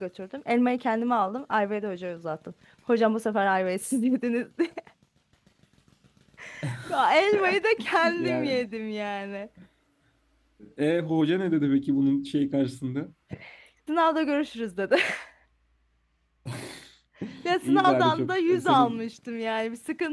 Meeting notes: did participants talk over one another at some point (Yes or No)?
Yes